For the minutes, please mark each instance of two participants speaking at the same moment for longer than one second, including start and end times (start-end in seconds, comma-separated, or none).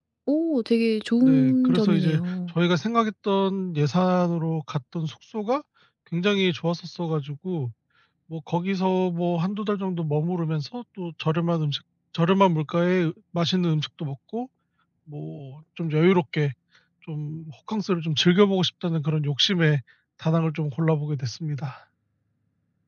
1.2-2.5